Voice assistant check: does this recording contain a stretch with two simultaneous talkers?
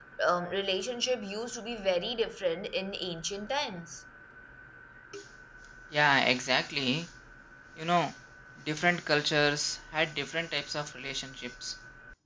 No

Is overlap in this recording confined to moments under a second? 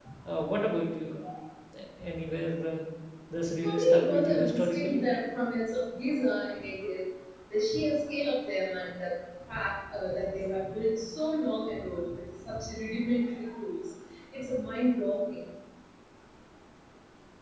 No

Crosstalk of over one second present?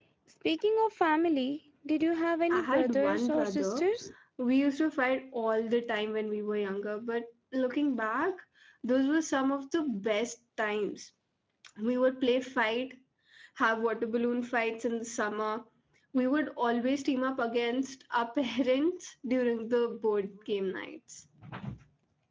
Yes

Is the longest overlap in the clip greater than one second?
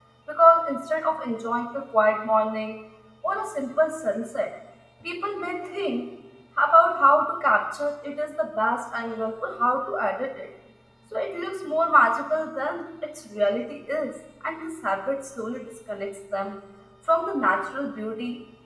No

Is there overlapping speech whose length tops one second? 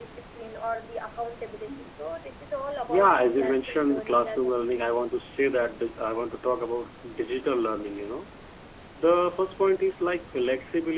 Yes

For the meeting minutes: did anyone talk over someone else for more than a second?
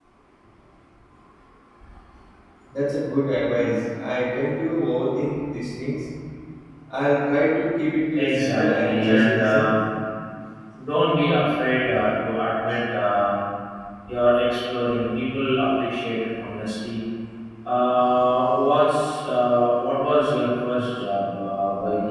Yes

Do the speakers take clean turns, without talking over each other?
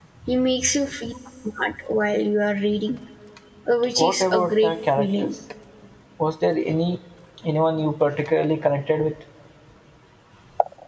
No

